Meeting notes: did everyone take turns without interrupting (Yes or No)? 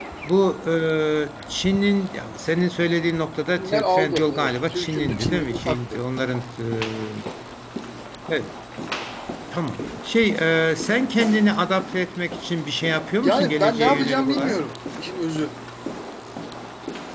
No